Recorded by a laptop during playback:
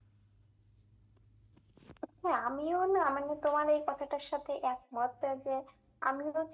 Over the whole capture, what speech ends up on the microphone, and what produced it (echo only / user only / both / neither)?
echo only